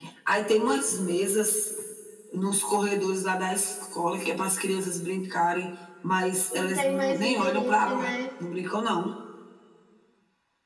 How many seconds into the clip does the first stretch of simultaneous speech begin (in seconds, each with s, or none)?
6.5 s